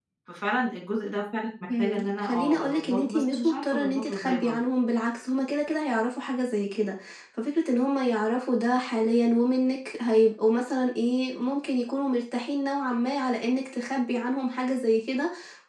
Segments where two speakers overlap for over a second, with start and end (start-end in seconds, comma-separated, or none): 1.8-4.6